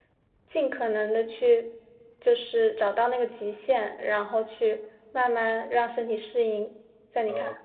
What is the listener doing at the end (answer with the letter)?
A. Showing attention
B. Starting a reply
B